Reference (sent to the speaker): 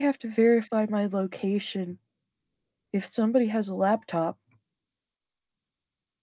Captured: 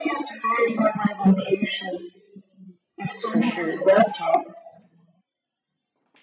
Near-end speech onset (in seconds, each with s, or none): 3.1 s